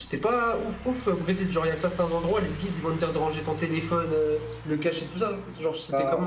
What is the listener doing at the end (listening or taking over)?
taking over